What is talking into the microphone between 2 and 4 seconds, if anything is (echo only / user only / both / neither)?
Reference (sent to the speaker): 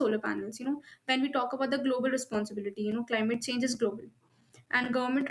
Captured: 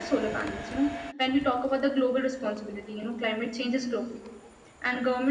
echo only